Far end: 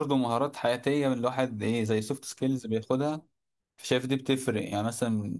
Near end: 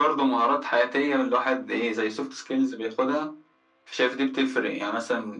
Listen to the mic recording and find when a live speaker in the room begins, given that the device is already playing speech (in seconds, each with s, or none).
none